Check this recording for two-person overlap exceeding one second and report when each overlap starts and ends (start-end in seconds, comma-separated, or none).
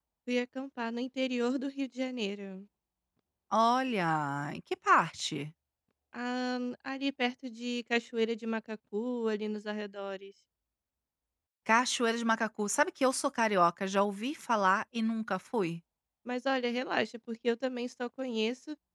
none